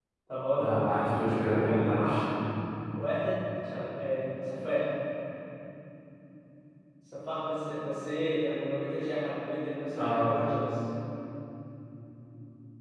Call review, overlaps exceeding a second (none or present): present